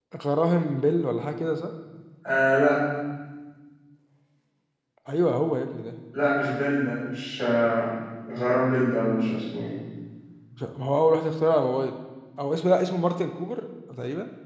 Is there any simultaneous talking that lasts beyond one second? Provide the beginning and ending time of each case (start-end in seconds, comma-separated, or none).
none